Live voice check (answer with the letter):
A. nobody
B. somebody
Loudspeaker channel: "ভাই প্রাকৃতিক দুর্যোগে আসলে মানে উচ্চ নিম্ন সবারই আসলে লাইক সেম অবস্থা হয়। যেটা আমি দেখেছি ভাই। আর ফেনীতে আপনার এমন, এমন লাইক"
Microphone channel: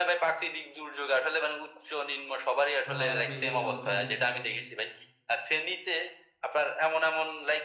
B